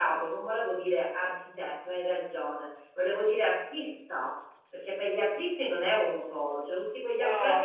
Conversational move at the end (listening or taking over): taking over